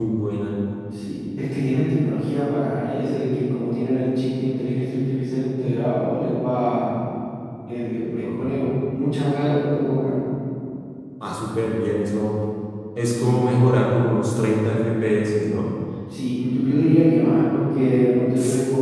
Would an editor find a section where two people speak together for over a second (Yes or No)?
No